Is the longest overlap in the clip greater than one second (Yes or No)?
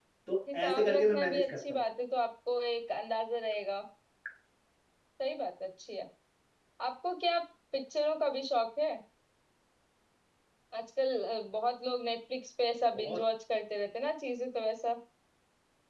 Yes